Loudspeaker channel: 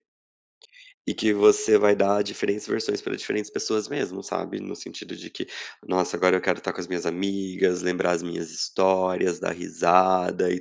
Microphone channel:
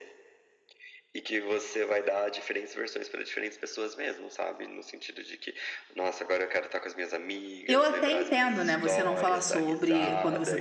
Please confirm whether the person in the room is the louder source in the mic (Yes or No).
Yes